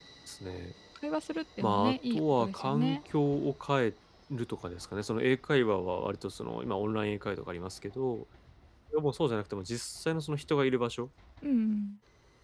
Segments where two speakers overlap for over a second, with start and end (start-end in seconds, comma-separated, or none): 1.6-3.0